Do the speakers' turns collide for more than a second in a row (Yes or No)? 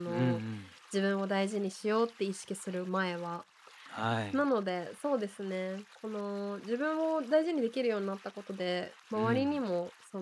No